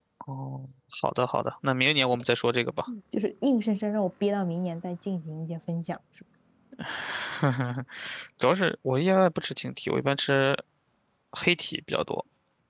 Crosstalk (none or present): none